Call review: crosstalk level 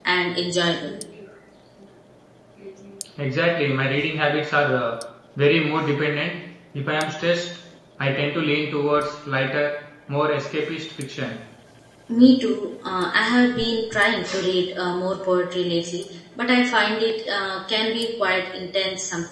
none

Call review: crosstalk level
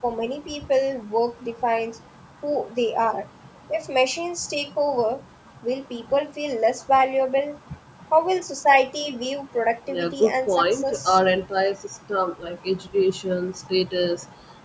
present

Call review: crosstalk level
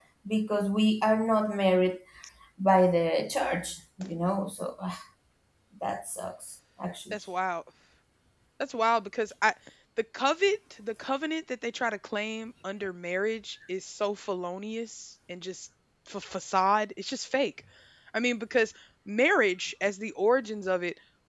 none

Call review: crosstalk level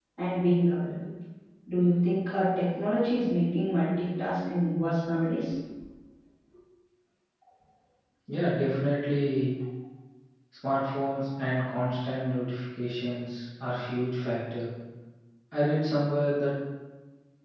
none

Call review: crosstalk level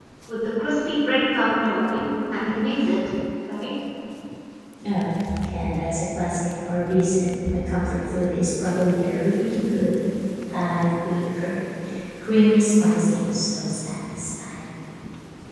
none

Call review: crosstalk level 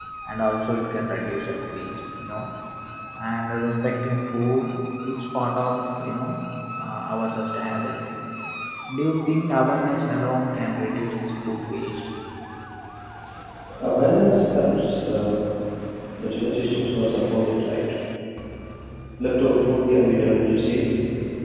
none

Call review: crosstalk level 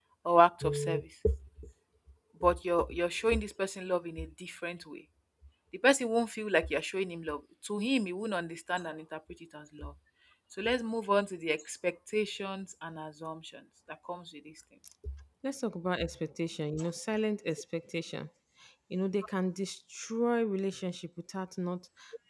none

